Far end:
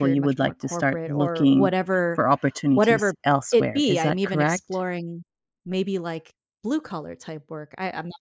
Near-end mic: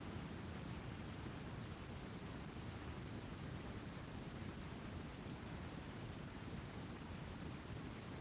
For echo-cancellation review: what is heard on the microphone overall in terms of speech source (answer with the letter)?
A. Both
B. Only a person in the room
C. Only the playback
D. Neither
D